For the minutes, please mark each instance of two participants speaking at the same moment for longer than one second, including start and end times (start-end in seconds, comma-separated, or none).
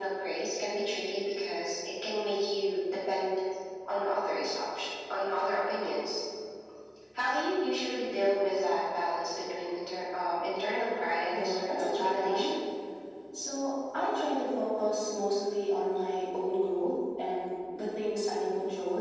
11.3-12.5